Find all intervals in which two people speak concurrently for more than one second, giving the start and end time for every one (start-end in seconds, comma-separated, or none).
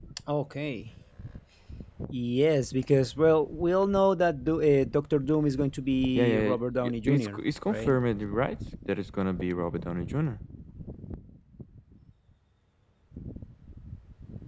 6.2-8.0